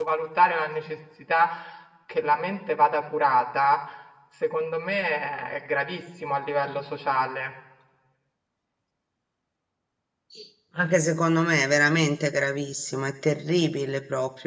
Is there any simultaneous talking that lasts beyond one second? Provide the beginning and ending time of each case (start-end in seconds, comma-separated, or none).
none